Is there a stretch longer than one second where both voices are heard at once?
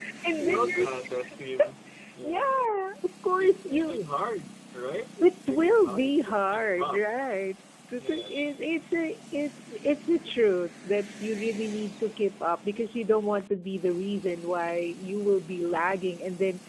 Yes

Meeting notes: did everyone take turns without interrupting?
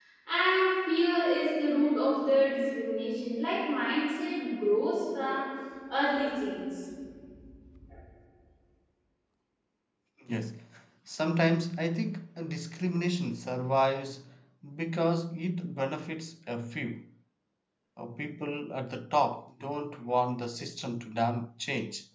Yes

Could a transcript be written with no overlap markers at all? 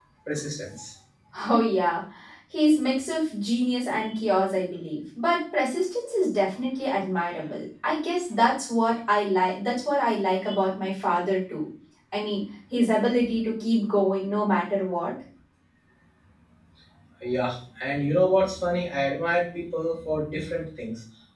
Yes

